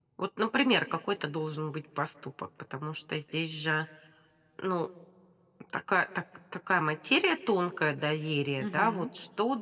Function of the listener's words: listening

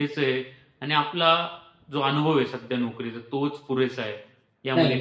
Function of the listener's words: taking over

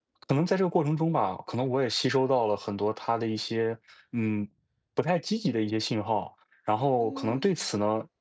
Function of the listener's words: listening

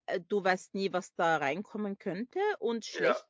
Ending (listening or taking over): listening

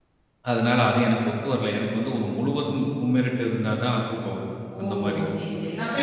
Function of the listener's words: taking over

